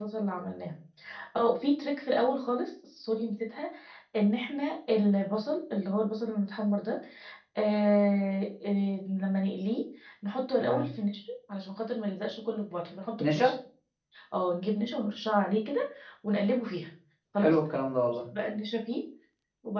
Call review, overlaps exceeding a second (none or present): none